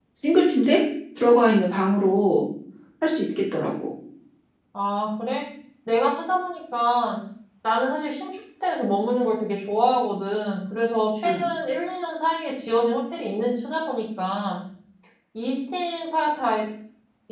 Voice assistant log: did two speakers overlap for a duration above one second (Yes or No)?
No